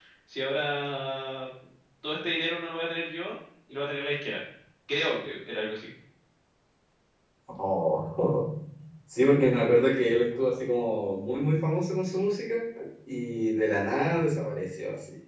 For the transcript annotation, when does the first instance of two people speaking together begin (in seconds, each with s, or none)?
none